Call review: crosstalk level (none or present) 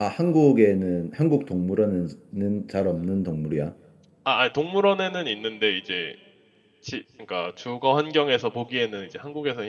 none